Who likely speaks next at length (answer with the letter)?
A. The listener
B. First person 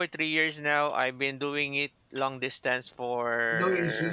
B